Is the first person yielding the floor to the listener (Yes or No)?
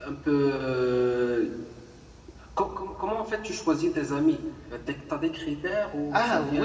Yes